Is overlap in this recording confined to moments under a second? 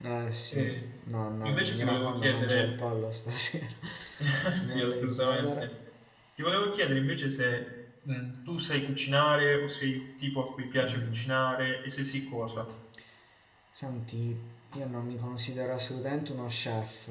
No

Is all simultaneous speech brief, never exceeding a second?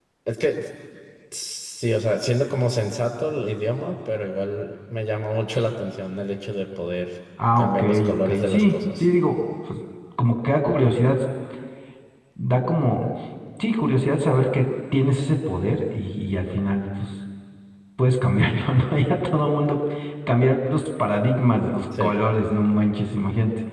No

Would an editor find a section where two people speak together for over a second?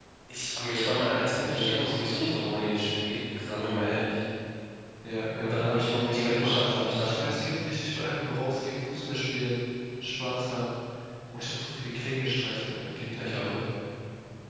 Yes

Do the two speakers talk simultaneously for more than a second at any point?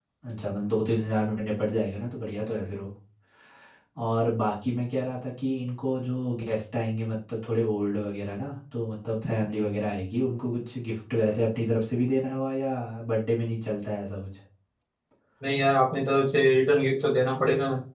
No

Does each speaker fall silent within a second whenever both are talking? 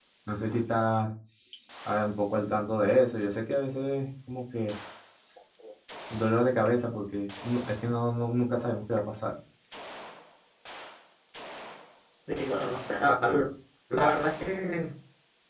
Yes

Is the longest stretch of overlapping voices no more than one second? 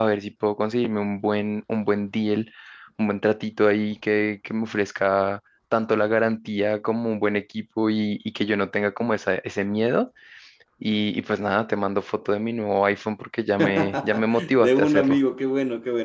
No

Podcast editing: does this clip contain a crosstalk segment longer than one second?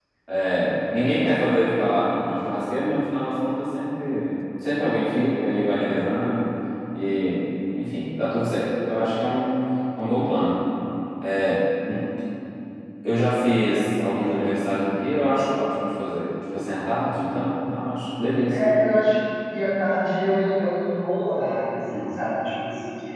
No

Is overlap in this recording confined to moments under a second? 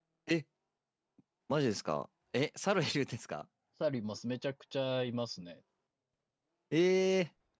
Yes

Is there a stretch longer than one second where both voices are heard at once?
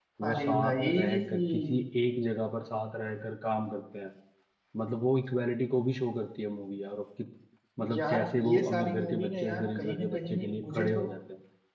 Yes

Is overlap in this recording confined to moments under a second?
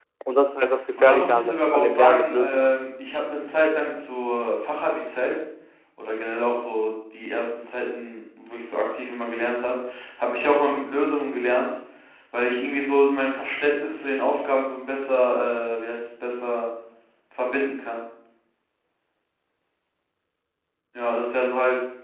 No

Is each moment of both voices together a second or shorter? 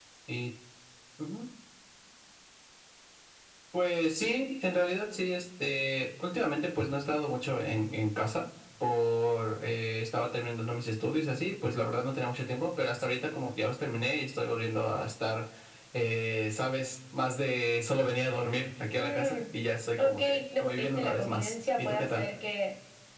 No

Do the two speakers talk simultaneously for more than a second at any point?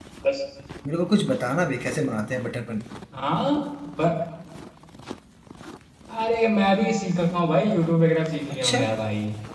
No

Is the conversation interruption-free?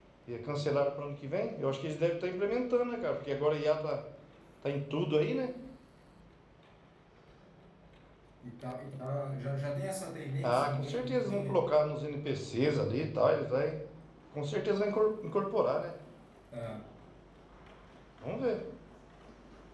No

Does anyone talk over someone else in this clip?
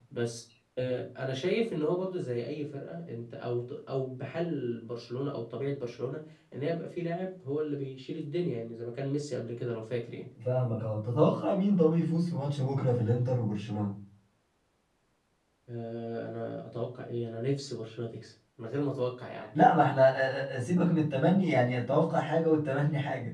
No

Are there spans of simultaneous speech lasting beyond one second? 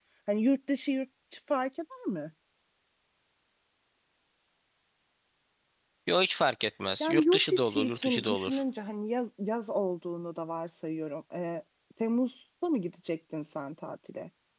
Yes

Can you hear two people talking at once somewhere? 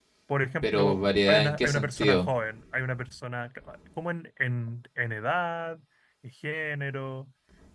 Yes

